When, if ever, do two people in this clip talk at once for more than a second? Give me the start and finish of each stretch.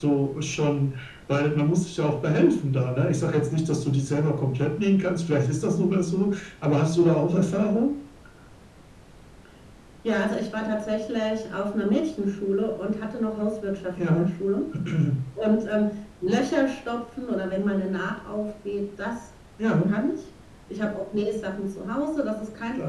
none

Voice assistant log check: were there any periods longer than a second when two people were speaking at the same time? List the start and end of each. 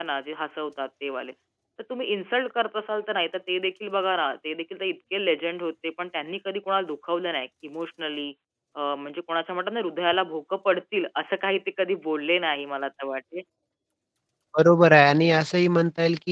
none

